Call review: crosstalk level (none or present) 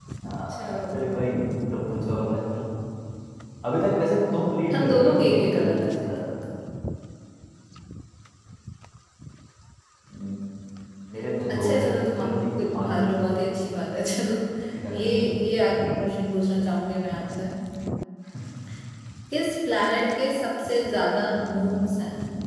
present